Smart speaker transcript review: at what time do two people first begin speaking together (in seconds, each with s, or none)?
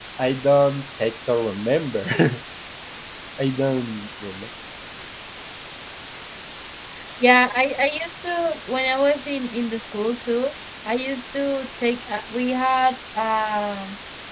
none